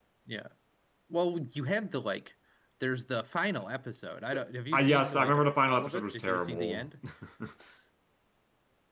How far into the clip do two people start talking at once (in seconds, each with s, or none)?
4.3 s